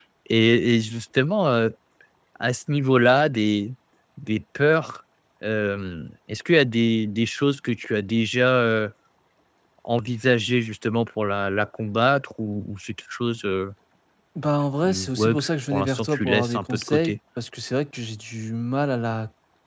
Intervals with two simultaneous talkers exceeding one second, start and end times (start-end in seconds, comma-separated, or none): 14.8-17.1